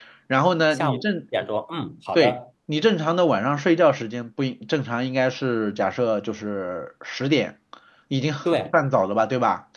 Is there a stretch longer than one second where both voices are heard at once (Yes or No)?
No